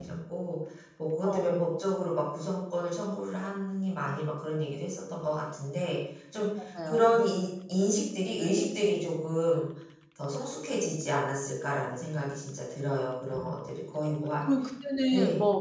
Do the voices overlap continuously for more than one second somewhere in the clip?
No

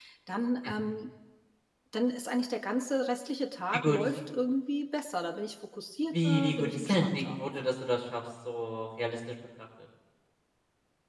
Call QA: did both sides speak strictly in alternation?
No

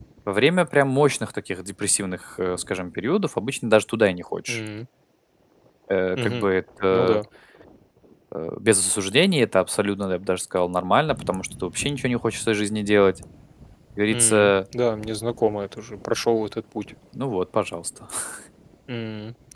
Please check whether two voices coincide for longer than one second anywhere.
No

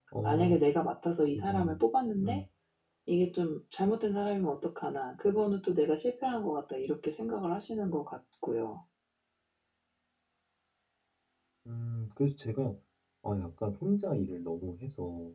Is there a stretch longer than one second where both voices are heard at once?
No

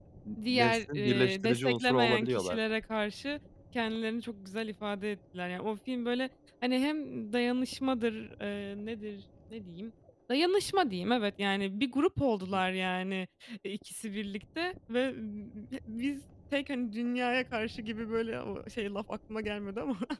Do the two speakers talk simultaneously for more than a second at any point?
Yes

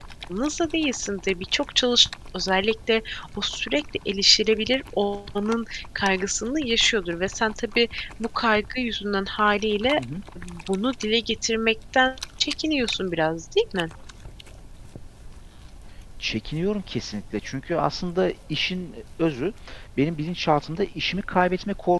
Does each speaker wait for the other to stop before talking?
Yes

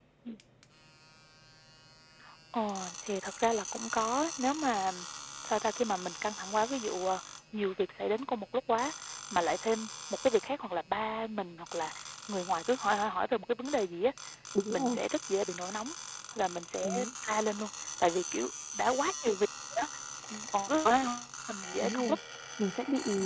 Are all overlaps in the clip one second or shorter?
Yes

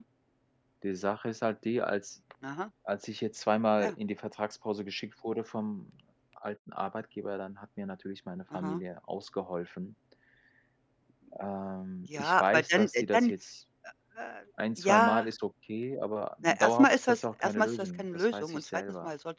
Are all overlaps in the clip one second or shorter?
No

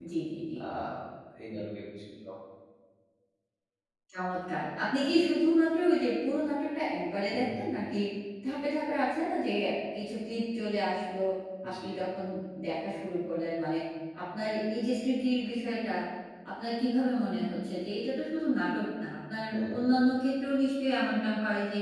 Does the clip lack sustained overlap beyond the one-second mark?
Yes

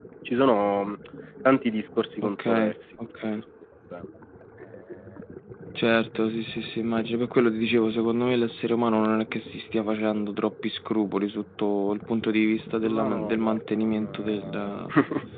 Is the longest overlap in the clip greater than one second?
Yes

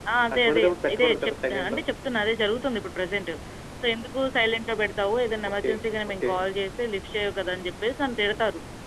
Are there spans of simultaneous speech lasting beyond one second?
Yes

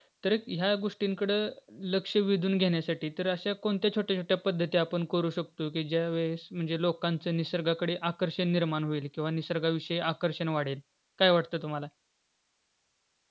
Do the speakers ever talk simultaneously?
No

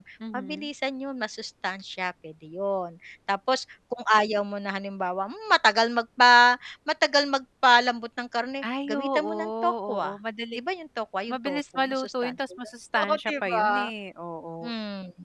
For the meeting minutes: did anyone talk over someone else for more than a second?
Yes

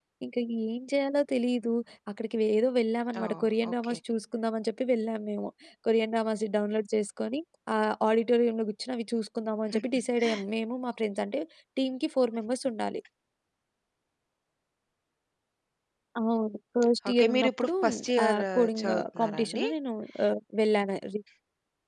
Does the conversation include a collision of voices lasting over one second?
Yes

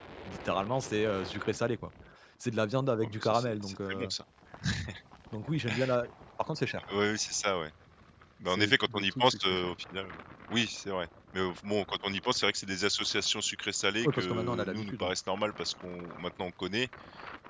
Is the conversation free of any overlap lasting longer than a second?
No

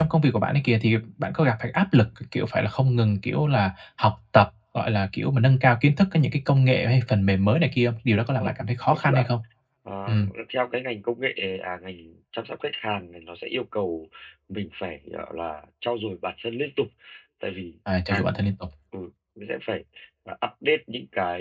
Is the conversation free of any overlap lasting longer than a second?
Yes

